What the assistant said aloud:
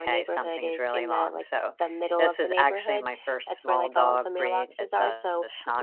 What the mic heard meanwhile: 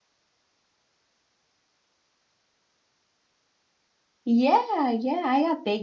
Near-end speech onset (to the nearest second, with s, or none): 4 s